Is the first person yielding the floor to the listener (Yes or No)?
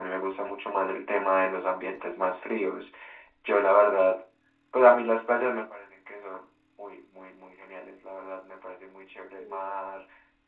No